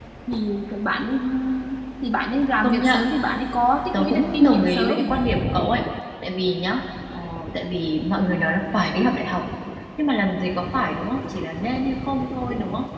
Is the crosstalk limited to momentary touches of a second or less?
No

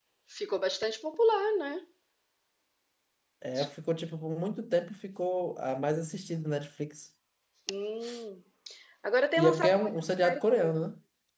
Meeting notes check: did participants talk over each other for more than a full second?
Yes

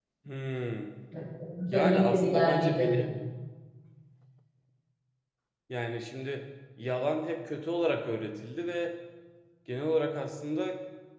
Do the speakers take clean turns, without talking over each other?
No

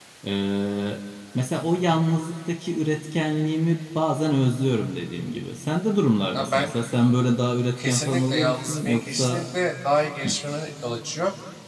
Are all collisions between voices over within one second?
No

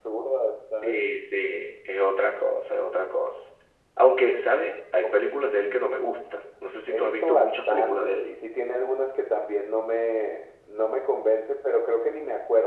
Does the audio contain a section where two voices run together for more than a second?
Yes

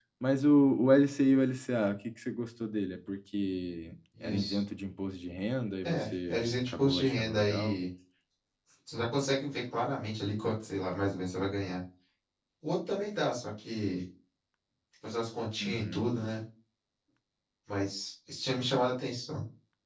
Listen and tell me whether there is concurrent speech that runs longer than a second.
Yes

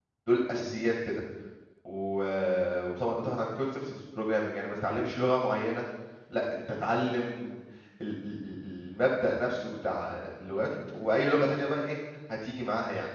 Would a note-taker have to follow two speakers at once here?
No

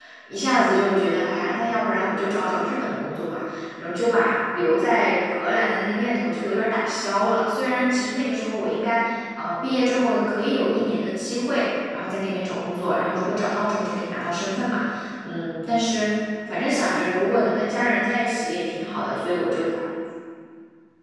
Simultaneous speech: No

